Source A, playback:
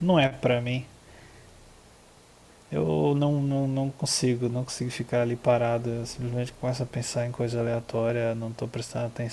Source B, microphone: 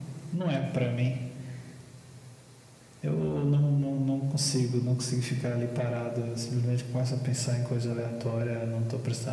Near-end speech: none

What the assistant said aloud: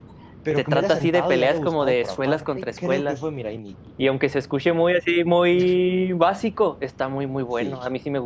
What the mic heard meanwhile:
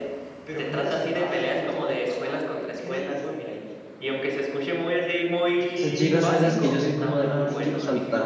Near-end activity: present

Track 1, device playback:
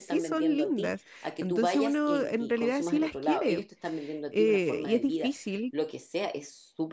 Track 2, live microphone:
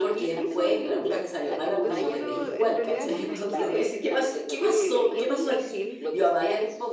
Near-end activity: present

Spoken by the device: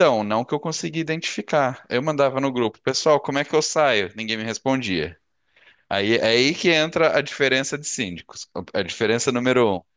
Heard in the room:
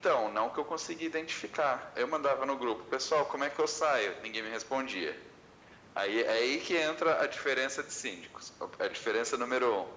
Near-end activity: none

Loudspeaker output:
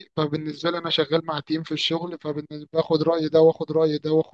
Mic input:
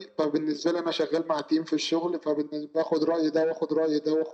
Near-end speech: none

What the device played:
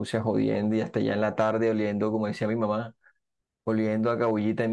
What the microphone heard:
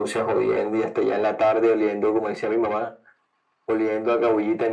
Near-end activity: none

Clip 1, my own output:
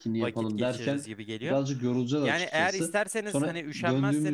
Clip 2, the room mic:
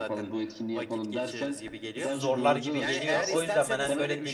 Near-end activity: present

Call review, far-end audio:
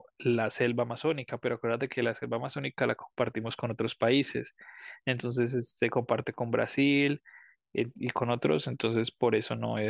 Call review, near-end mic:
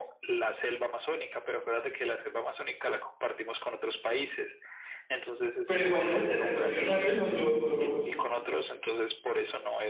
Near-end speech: present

